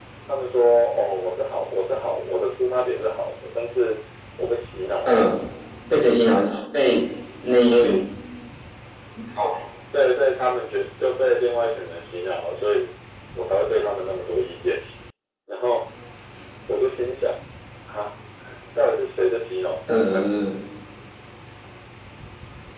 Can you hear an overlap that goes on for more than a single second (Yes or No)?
No